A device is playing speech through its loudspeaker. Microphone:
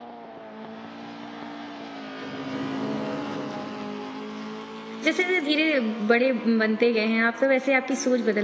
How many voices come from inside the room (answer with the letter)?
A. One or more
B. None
A